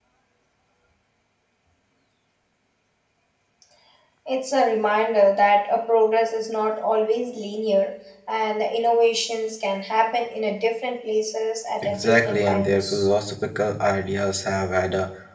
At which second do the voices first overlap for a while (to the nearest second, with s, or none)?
12 s